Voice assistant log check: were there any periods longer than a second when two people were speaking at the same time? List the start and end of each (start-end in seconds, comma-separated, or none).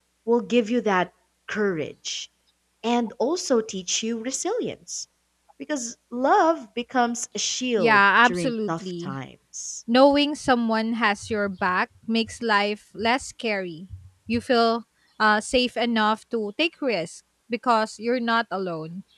7.8-9.1